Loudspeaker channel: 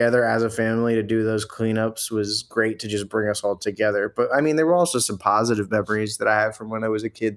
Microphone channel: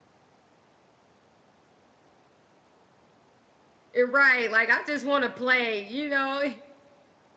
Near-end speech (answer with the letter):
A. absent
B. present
B